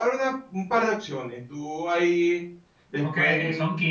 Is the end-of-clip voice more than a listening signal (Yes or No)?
Yes